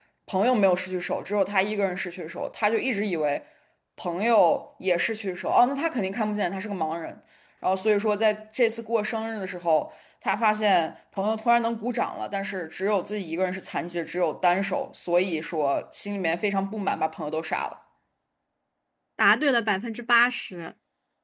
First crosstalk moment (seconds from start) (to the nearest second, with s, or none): none